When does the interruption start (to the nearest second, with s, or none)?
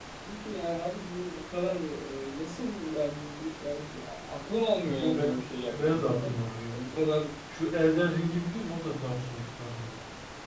5 s